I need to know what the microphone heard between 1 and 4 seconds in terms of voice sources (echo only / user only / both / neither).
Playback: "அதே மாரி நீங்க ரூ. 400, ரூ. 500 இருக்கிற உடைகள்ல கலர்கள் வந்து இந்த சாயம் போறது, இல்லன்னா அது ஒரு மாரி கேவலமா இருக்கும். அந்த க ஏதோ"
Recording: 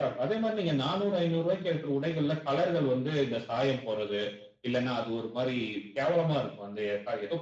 echo only